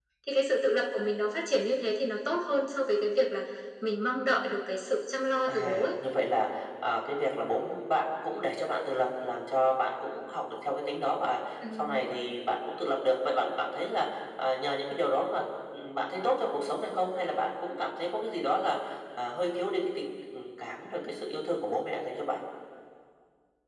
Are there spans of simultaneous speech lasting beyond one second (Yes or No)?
No